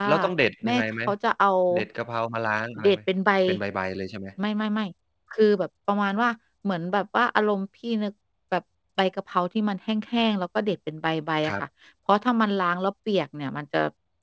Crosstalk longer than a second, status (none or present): none